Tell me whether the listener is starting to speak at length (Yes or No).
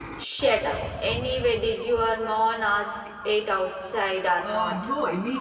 Yes